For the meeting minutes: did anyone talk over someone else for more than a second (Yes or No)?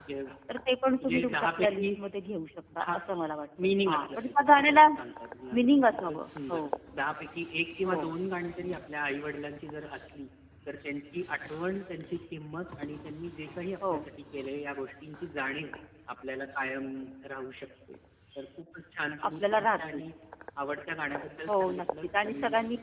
Yes